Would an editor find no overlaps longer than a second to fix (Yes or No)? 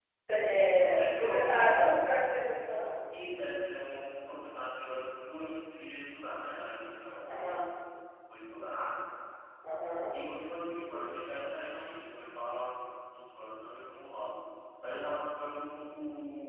No